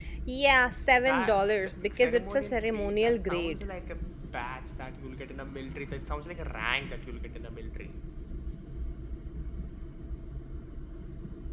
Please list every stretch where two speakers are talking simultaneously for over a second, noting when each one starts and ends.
1.0-3.6

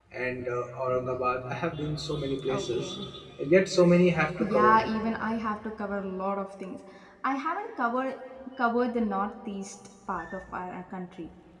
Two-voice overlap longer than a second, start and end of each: none

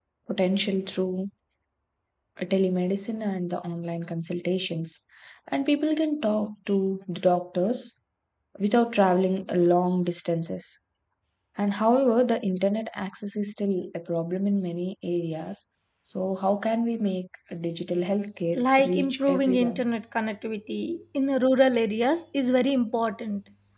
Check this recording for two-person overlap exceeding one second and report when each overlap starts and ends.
18.5-19.8

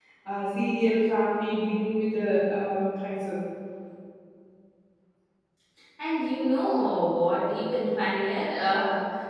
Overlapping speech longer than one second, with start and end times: none

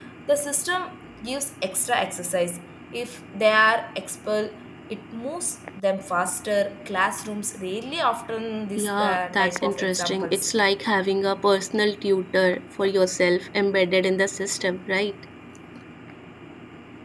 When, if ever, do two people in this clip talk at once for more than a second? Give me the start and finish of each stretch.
8.8-10.5

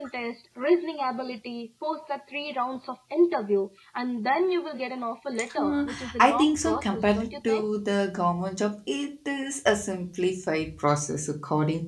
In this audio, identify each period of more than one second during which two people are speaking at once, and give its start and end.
5.5-7.7

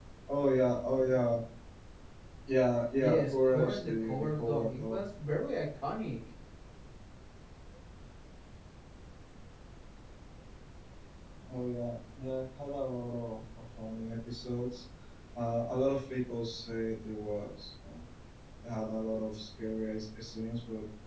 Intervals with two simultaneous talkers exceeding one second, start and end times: 3.0-5.0

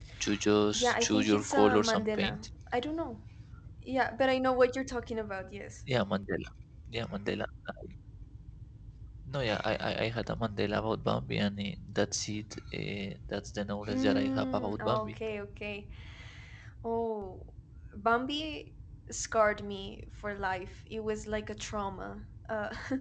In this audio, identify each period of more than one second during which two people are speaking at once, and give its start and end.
0.7-2.4, 13.9-15.2

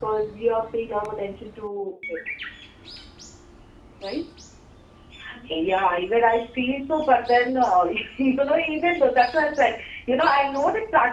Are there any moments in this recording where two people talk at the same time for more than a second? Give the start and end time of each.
none

